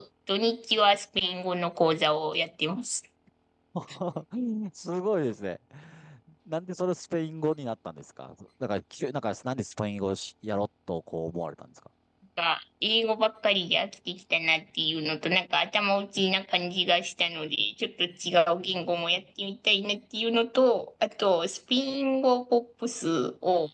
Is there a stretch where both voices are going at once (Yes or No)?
No